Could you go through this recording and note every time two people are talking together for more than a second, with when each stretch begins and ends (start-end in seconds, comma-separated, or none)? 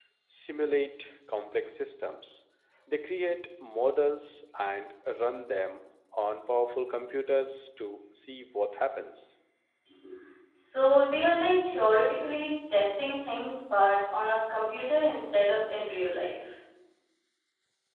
none